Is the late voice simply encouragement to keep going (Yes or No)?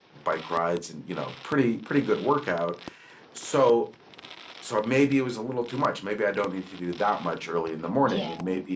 Yes